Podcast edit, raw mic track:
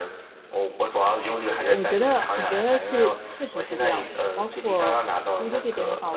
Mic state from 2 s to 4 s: both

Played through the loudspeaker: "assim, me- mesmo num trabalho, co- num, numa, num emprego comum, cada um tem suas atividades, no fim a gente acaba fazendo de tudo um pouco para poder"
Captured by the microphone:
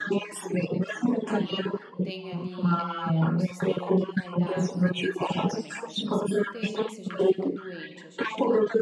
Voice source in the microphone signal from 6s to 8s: both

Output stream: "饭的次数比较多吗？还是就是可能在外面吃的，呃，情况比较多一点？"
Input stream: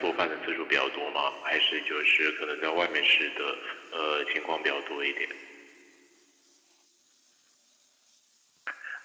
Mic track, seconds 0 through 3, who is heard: echo only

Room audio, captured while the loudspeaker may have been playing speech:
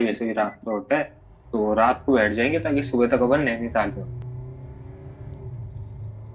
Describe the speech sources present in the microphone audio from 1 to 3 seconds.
echo only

